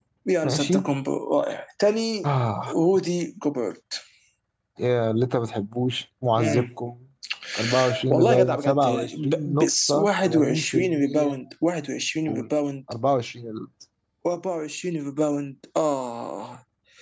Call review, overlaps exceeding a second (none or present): present